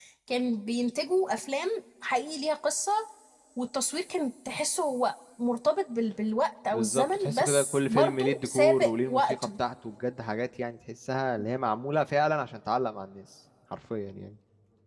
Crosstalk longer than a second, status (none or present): present